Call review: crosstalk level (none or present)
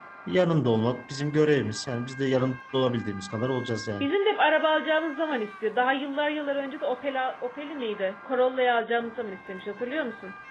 none